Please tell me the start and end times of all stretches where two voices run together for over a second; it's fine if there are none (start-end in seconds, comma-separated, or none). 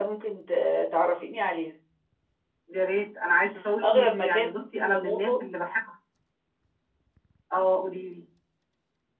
3.8-5.3